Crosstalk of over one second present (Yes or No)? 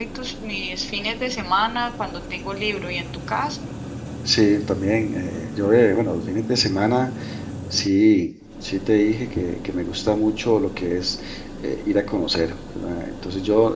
No